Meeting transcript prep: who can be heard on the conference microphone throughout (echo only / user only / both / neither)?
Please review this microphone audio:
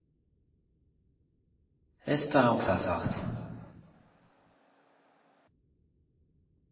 user only